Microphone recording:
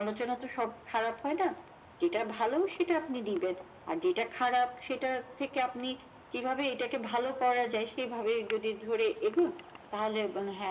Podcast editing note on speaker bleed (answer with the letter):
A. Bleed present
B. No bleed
A